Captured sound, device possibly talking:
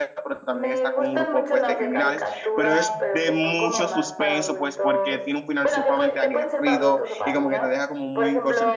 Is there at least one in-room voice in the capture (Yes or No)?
Yes